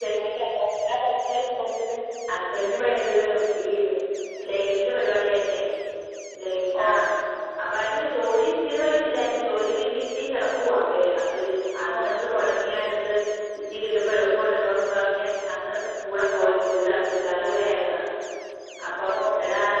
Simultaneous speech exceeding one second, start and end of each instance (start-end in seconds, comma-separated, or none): none